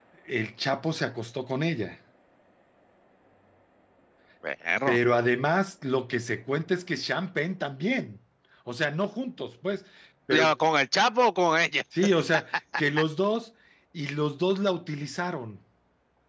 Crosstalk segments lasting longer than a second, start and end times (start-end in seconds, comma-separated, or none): none